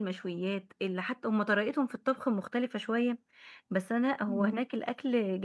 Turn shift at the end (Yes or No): No